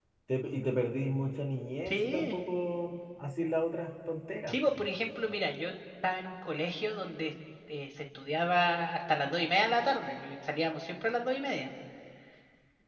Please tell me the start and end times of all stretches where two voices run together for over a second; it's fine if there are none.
none

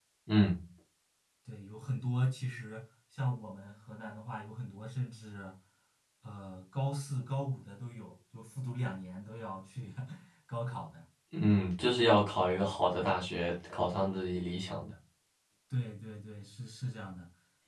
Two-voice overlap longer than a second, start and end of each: none

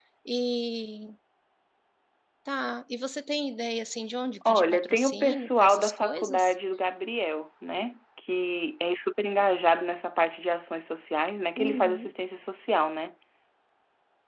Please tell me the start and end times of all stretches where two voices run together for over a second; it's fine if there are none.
4.5-6.5

